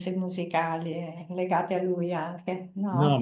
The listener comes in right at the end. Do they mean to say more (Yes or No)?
Yes